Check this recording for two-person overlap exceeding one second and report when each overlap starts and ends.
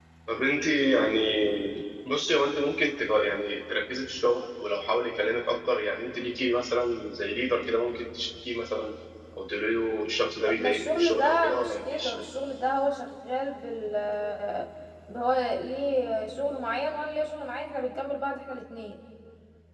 10.5-12.1

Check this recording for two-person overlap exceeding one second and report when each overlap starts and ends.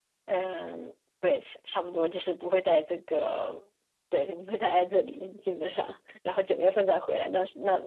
none

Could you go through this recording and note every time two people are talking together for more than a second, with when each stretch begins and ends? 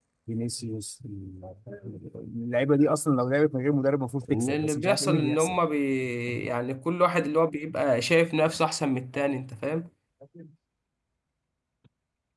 4.3-5.6

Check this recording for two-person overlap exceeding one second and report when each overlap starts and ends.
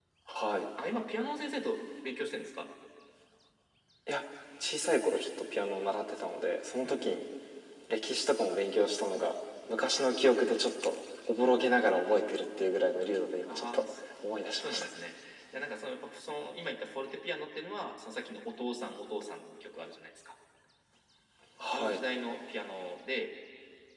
none

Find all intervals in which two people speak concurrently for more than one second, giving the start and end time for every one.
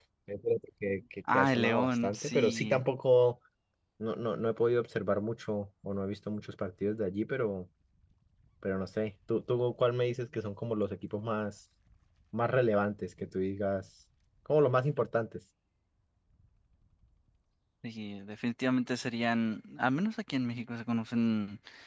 1.3-2.8

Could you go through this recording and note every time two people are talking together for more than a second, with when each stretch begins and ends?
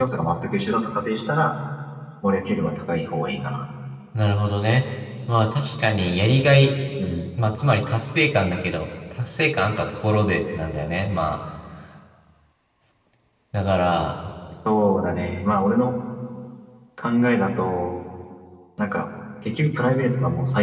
none

